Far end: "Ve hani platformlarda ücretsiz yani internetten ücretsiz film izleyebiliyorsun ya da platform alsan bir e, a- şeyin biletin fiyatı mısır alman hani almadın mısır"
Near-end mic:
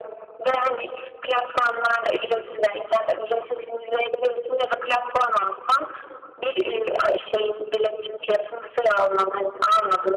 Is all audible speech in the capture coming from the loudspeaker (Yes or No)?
Yes